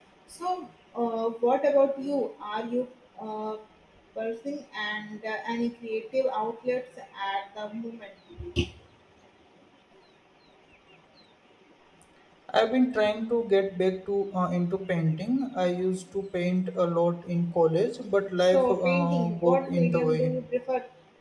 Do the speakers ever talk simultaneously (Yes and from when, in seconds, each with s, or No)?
Yes, from 18.4 s